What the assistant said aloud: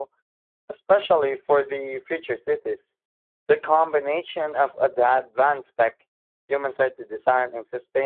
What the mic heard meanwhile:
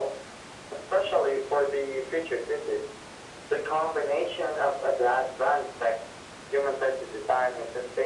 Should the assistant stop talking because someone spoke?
No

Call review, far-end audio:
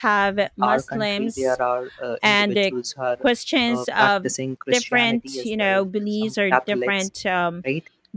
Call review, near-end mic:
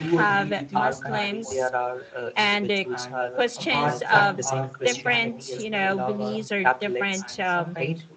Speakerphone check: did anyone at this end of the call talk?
Yes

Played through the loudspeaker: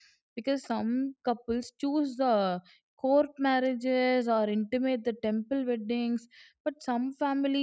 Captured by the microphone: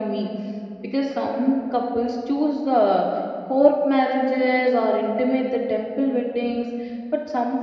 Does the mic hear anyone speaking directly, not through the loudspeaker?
No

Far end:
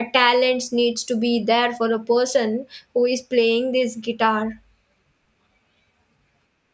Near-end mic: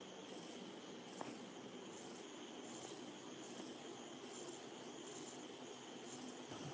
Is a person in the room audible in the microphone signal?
No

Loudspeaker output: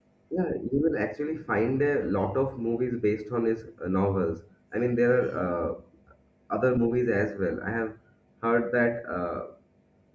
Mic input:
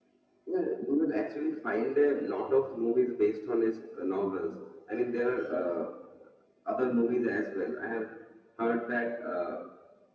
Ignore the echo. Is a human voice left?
No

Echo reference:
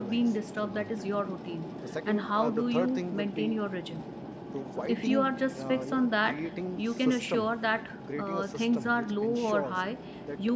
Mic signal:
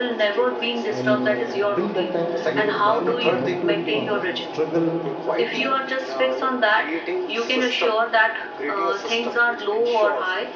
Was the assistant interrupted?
Yes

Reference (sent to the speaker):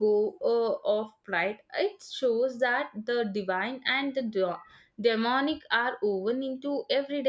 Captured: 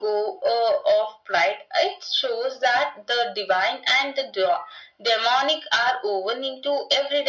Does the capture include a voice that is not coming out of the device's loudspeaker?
No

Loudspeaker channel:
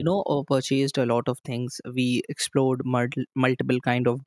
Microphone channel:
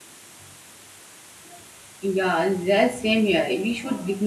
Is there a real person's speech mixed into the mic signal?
Yes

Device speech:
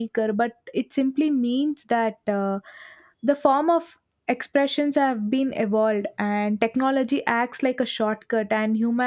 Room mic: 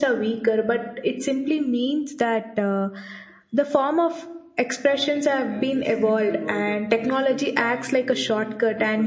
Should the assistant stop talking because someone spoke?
Yes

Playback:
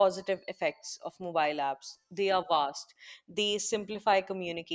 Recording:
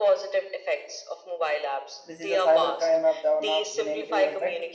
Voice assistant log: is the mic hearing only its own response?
No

